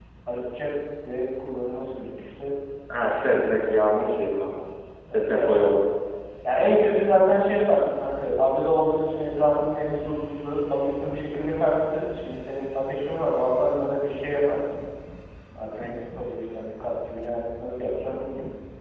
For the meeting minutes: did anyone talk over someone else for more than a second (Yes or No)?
No